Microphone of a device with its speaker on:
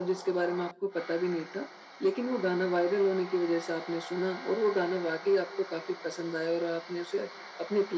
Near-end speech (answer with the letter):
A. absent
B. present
A